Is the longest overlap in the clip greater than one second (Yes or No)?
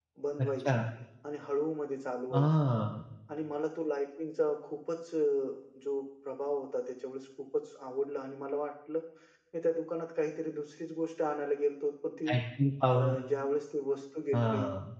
No